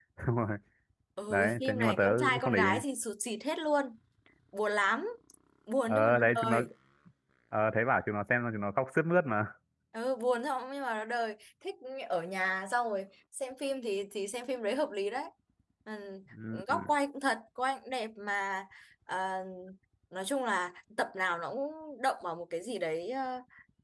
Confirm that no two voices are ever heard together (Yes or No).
No